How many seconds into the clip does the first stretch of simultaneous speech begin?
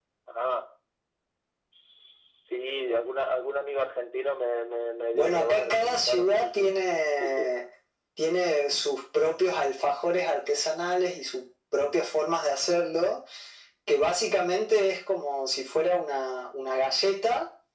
5.1 s

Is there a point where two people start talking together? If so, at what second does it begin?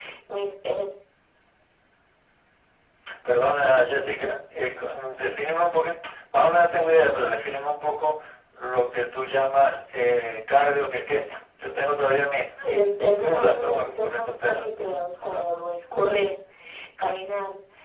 12.6 s

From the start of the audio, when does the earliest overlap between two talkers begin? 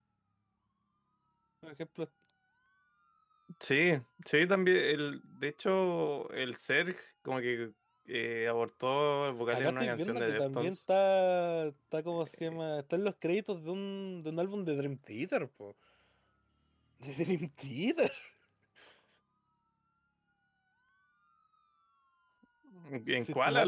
9.5 s

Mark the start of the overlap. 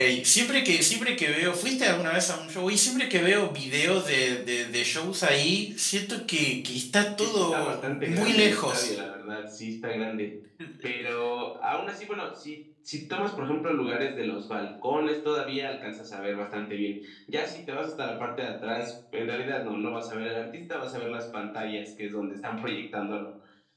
7.2 s

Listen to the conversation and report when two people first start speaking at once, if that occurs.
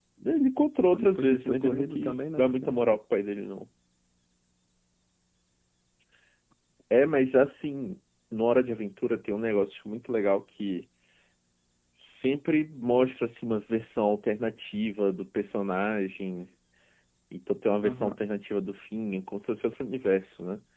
0.9 s

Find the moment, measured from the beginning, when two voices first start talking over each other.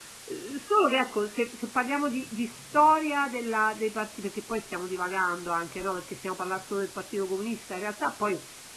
none

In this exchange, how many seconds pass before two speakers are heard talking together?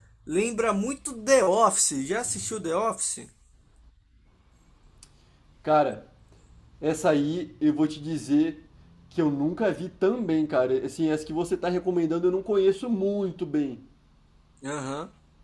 none

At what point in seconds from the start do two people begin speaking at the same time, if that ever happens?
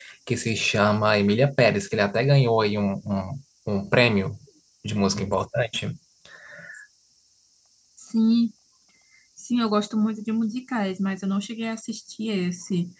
none

